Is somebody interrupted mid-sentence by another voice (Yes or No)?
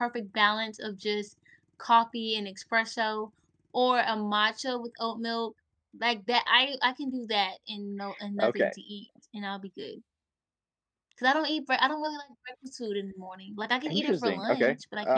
Yes